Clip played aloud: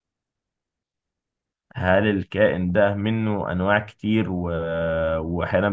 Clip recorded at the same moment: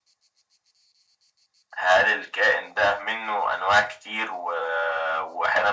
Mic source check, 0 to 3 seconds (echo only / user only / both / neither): echo only